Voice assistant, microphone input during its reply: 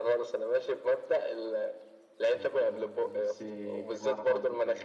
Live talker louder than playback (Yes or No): No